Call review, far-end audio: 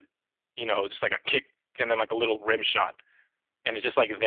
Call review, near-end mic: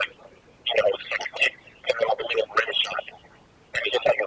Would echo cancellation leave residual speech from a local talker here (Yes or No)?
No